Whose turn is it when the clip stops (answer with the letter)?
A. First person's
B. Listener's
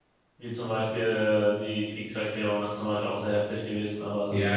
B